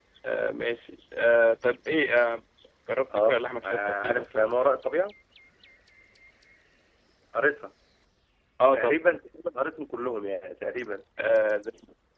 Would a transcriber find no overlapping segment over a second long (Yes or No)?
No